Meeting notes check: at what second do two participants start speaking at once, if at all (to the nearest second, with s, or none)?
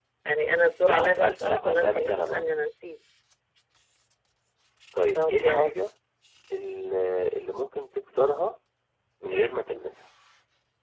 1 s